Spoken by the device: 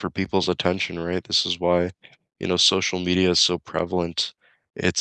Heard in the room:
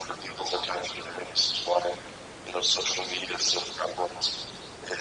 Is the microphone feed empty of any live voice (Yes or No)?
Yes